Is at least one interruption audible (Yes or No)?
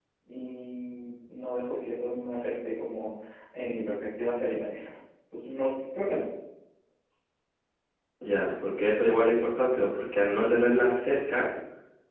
No